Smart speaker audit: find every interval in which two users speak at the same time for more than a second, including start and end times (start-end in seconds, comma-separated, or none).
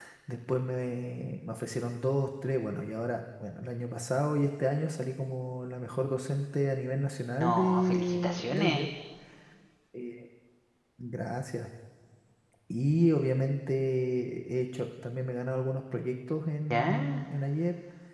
7.4-8.9